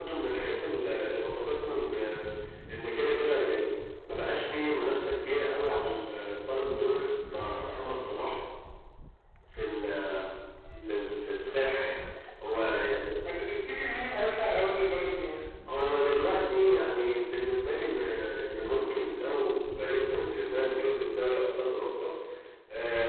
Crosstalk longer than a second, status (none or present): none